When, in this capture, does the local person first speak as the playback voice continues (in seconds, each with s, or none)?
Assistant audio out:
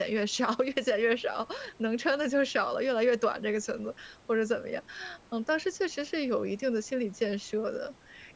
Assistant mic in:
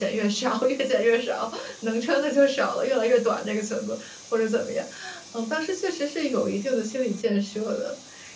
none